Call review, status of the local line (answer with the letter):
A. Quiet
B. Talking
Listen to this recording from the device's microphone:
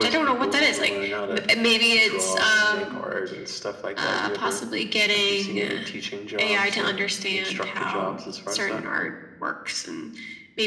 A